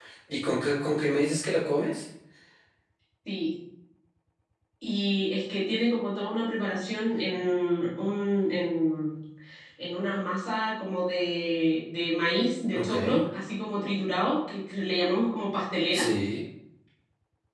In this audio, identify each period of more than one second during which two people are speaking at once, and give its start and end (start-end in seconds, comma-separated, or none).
none